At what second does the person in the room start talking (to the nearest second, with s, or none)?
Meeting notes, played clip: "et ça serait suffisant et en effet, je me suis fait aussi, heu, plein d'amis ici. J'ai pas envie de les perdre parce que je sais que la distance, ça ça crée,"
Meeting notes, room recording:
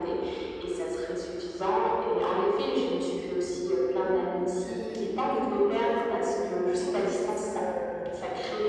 4 s